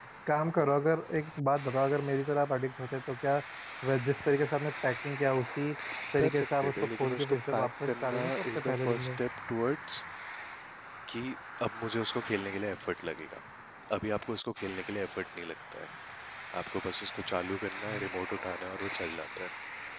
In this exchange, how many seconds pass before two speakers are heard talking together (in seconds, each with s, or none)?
6.2 s